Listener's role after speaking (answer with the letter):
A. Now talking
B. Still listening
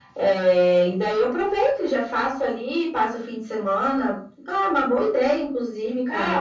A